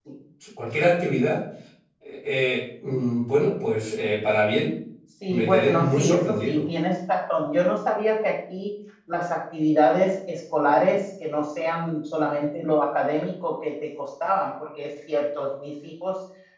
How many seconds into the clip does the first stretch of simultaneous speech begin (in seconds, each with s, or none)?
5.3 s